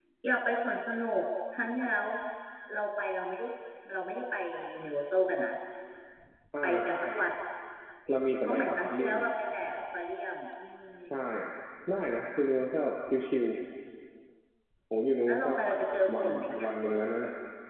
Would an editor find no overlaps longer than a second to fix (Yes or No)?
No